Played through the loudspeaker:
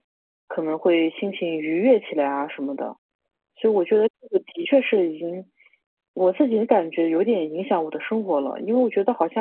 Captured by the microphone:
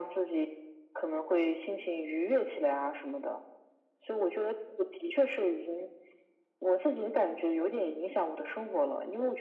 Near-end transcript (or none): none